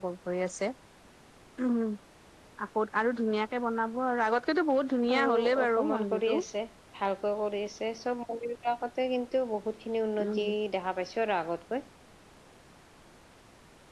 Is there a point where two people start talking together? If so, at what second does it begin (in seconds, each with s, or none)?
5.2 s